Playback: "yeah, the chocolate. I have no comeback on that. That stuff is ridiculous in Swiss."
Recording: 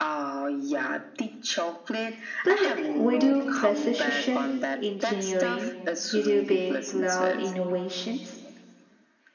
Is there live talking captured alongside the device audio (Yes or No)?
Yes